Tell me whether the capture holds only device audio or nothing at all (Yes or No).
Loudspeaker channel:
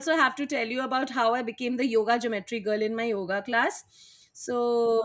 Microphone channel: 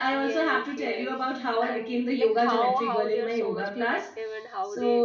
No